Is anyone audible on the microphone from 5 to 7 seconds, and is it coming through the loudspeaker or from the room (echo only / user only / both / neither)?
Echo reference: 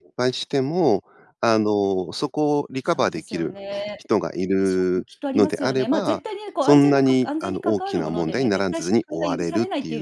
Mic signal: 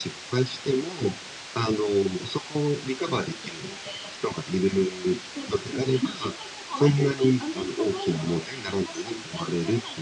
echo only